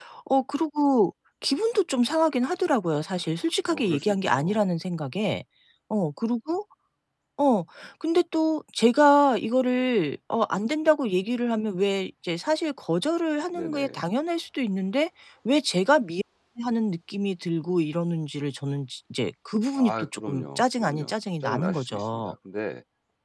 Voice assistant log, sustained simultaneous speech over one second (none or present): present